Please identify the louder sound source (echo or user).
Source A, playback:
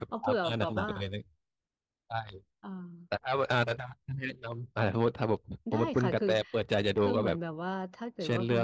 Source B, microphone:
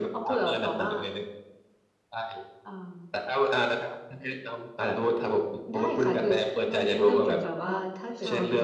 echo